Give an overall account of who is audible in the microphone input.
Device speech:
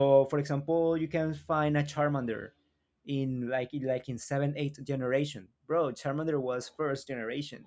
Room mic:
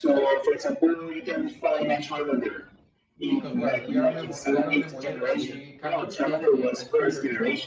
both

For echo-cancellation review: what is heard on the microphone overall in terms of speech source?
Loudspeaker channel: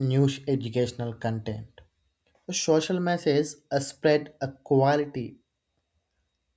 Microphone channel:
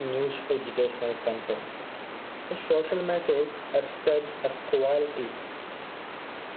echo only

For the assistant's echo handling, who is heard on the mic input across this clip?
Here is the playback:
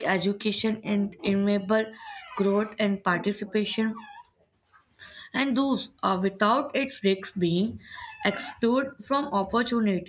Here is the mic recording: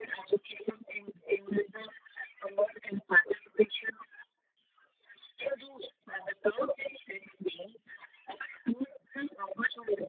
echo only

